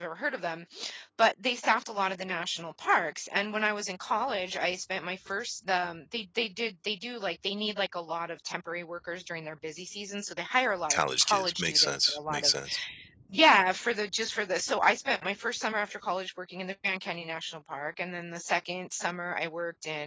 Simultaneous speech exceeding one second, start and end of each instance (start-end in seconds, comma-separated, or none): 10.9-12.5